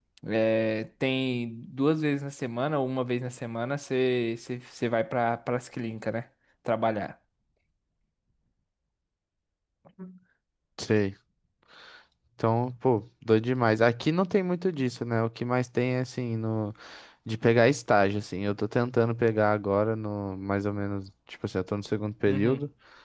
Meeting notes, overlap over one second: none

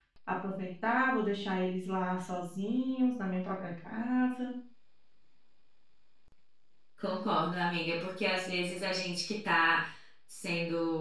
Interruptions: none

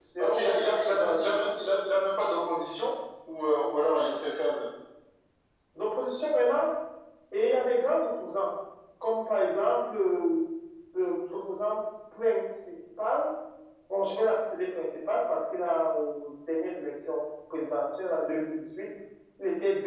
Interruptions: present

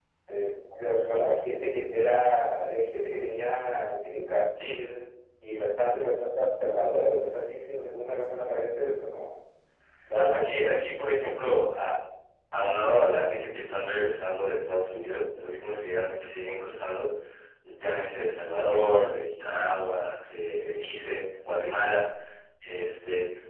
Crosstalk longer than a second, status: none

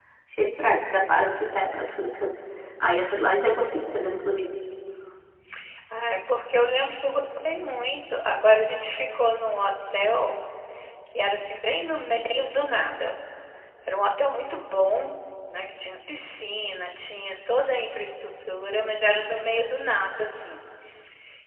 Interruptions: none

